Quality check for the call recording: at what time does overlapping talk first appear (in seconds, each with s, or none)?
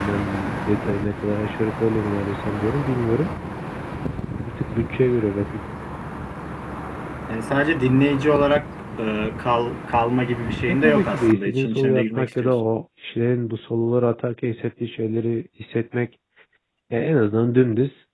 10.7 s